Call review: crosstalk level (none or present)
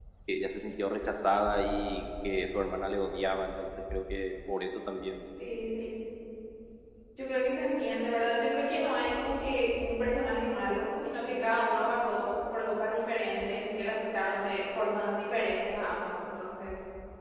none